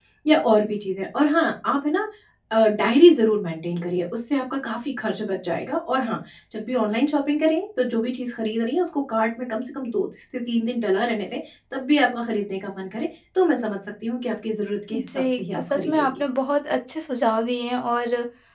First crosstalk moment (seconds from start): 14.9 s

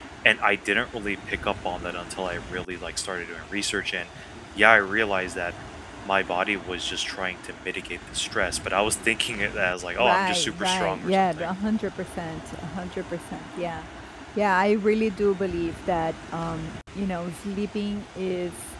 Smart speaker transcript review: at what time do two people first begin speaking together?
10.0 s

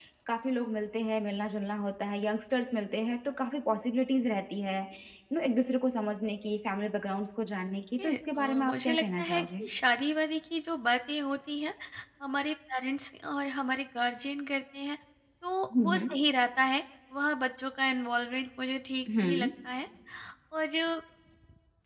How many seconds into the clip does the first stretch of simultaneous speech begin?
8.0 s

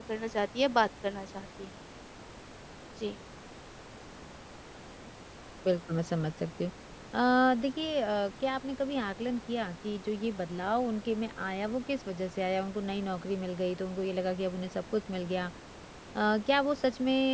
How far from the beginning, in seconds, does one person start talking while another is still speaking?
none

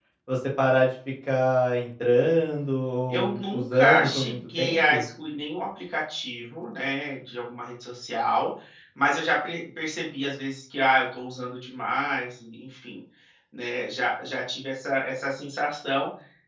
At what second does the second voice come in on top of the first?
3.1 s

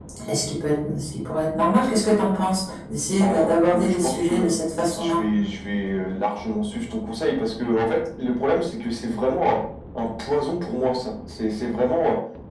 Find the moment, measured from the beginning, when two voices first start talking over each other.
3.2 s

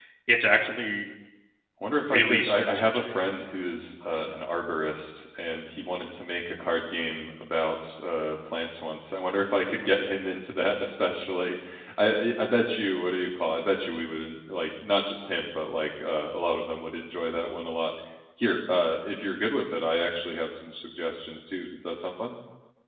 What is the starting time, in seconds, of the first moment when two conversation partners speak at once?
2.0 s

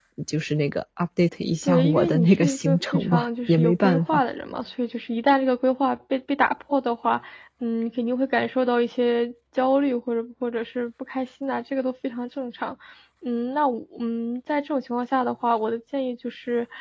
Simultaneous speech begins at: 1.6 s

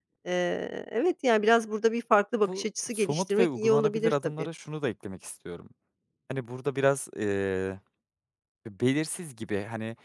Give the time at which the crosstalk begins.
2.5 s

